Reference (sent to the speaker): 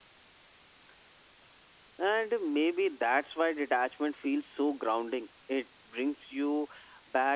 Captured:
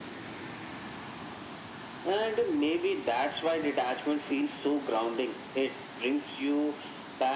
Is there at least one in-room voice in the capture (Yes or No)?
No